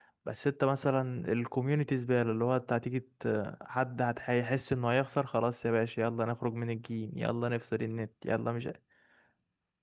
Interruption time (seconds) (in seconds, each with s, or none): none